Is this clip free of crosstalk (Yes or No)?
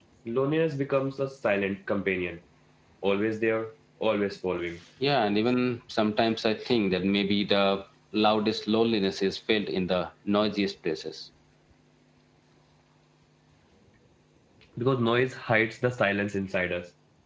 Yes